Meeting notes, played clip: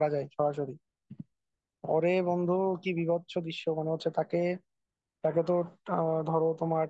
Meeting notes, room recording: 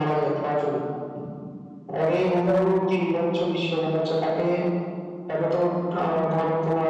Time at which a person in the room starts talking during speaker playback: 2 s

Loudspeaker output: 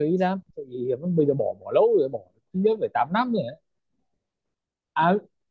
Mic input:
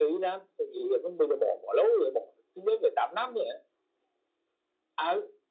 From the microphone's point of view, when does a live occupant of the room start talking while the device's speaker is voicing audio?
none

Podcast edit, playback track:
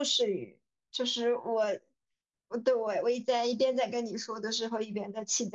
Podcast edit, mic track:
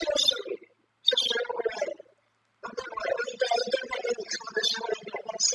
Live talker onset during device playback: none

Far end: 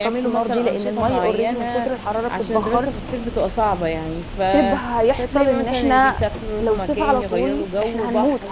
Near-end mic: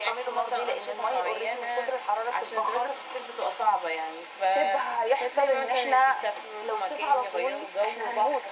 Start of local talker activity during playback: none

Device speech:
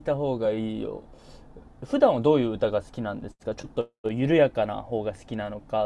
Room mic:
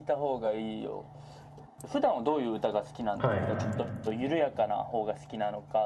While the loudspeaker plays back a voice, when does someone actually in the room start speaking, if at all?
3 s

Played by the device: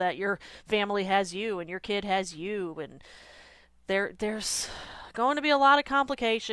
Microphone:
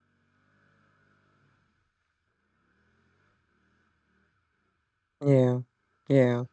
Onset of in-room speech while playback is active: 5 s

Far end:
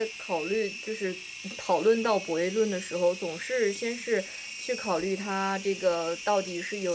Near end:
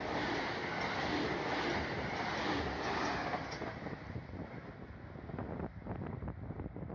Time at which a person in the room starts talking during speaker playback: none

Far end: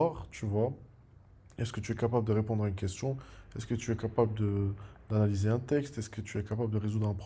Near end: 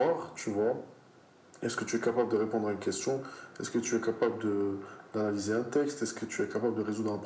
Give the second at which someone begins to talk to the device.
none

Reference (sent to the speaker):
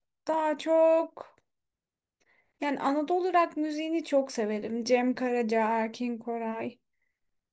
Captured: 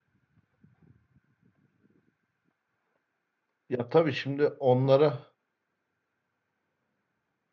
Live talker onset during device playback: 4 s

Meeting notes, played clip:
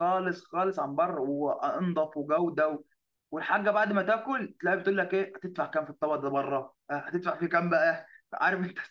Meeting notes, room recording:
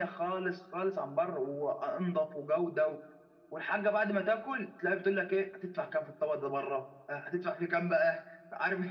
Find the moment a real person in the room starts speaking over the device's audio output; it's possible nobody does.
none

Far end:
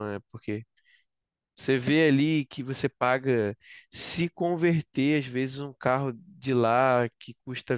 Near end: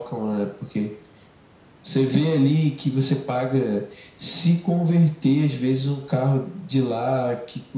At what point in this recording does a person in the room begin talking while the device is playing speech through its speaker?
none

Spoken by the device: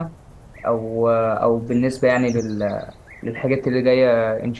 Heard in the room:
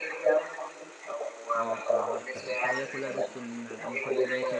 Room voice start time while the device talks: 2 s

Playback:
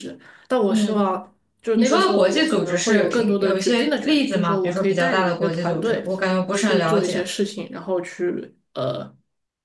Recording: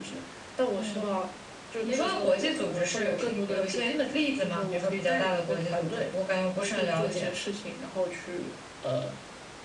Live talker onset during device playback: none

